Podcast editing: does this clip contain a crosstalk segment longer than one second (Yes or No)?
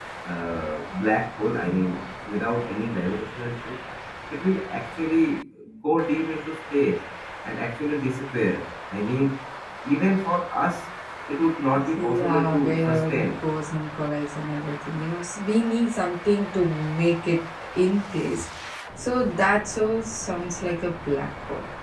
Yes